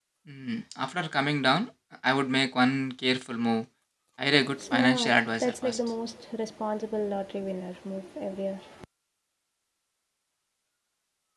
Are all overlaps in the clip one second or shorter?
No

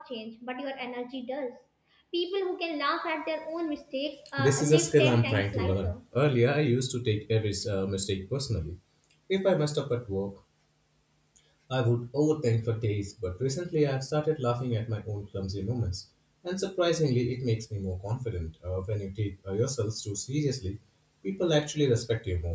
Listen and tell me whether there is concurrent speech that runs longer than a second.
Yes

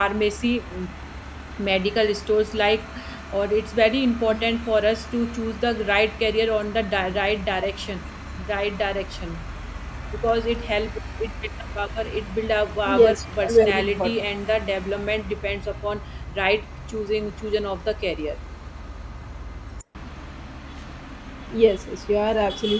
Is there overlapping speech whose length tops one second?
Yes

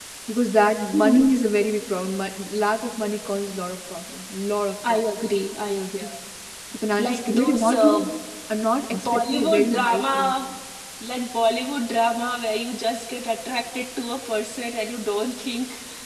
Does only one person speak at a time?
No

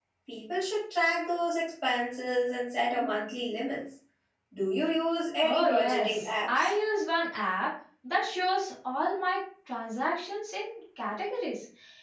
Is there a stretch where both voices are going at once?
Yes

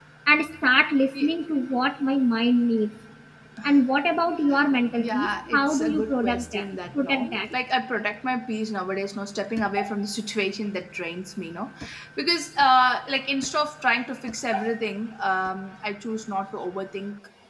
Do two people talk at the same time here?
Yes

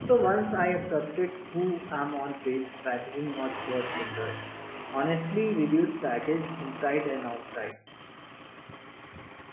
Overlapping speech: No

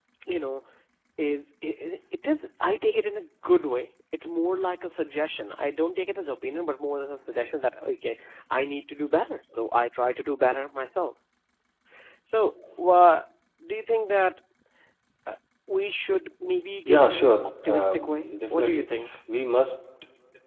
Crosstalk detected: Yes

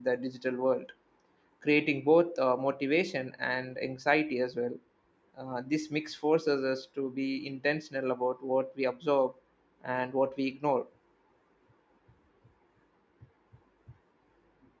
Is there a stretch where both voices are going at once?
No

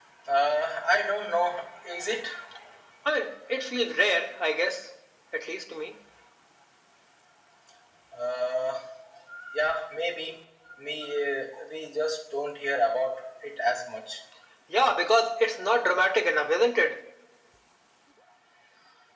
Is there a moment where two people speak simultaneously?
No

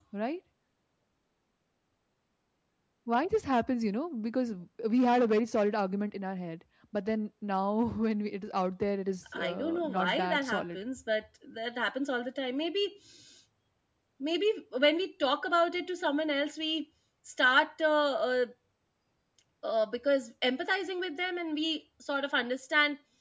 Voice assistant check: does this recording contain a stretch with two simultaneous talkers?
Yes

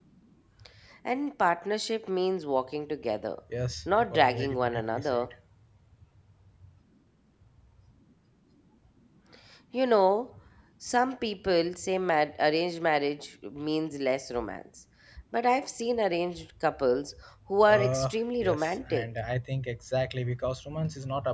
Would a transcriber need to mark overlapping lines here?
Yes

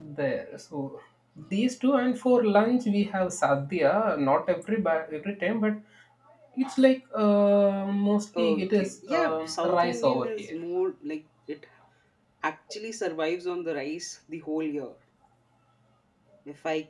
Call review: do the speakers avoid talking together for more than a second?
No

